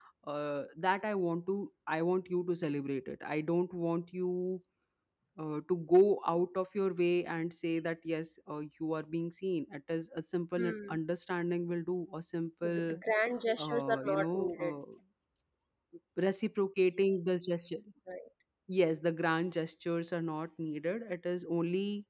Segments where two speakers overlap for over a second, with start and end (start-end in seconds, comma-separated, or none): 13.6-14.8